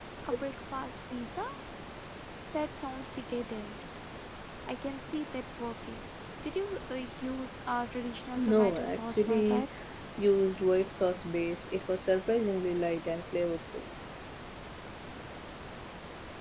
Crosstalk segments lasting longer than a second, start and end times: 8.4-9.6

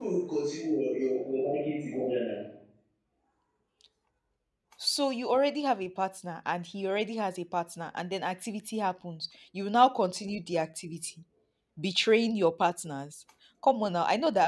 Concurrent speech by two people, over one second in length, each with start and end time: none

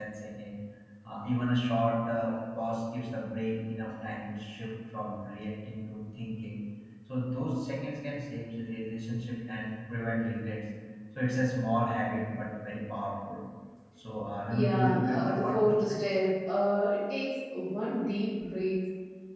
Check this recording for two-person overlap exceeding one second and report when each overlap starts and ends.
14.5-16.0

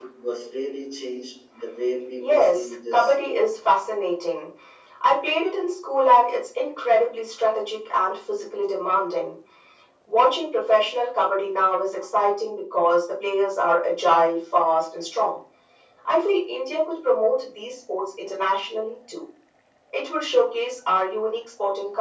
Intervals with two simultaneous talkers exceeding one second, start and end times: 2.2-3.5

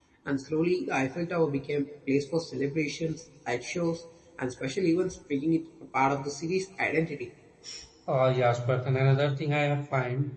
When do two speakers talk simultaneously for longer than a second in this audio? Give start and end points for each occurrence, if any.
none

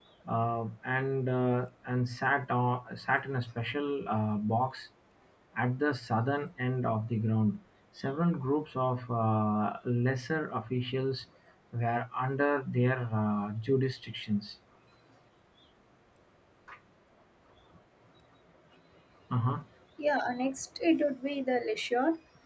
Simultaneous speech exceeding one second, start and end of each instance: none

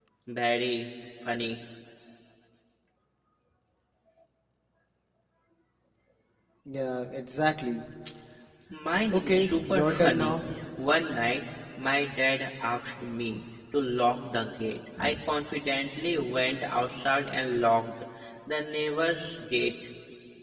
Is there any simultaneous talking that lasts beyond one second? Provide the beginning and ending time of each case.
9.1-10.4

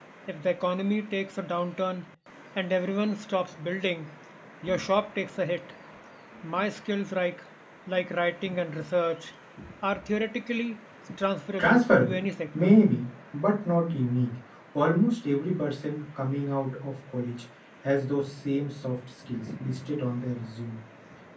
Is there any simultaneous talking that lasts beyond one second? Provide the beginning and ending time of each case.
none

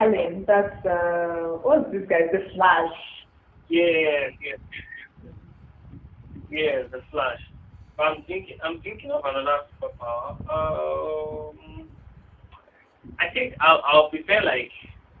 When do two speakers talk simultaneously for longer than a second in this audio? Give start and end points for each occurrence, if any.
none

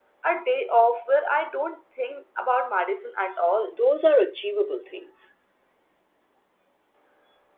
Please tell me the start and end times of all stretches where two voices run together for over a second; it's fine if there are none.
none

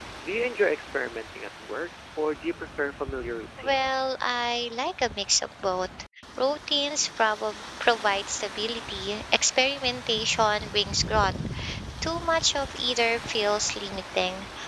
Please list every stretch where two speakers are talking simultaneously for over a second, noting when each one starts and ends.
none

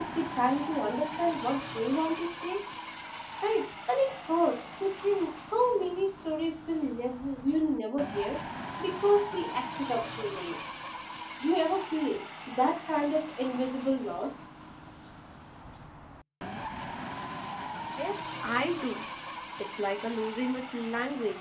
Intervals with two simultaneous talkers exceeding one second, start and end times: none

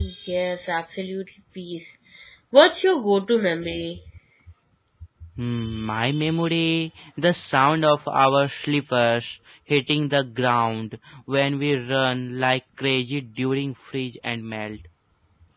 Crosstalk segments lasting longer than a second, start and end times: none

